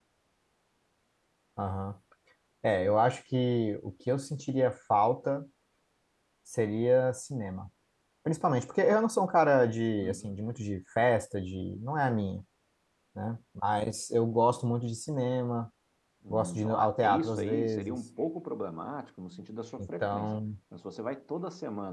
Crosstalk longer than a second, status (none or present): present